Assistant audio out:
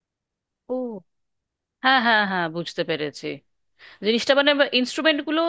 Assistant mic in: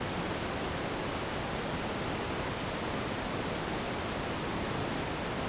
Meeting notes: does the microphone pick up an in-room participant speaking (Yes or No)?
No